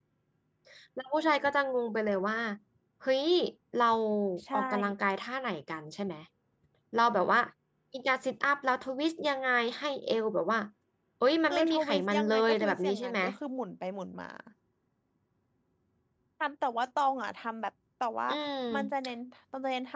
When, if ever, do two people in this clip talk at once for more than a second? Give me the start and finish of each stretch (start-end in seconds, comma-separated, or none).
11.4-13.2